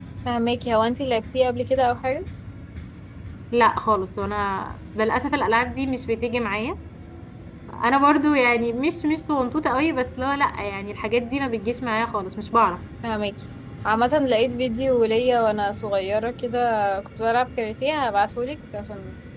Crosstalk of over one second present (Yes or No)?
No